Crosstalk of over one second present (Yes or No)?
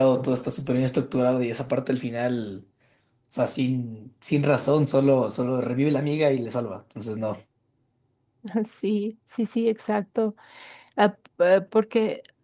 No